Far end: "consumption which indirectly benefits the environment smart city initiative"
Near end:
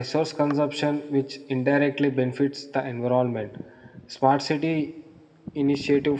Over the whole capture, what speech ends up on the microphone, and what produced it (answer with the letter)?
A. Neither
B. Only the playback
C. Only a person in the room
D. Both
B